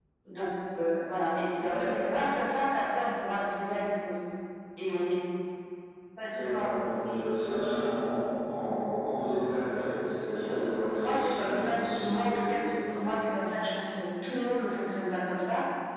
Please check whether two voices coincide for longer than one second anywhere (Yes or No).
Yes